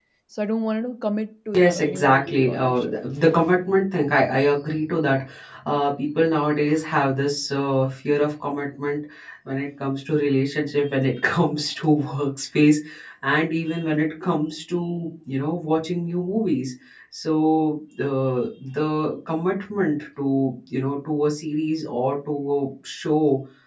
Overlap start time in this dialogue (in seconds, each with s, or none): 1.5 s